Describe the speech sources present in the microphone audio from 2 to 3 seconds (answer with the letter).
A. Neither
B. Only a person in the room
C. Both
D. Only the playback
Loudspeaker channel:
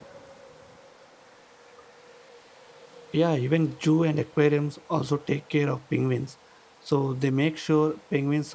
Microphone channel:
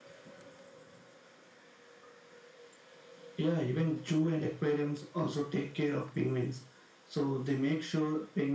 A